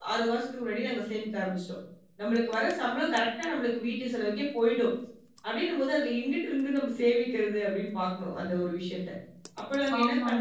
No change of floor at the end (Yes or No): No